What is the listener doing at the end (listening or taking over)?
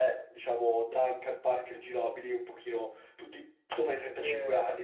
taking over